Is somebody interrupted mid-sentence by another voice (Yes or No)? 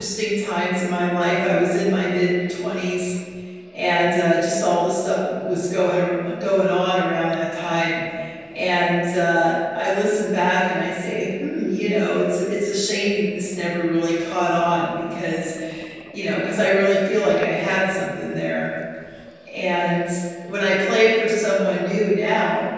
No